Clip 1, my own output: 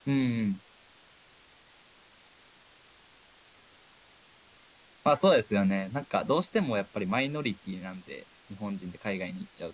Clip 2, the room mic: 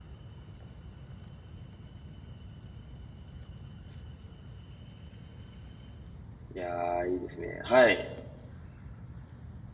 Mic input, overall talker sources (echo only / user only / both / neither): user only